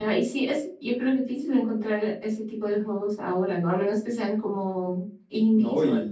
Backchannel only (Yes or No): No